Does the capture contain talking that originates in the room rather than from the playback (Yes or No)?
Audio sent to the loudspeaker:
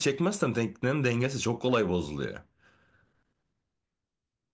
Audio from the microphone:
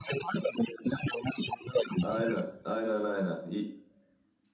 Yes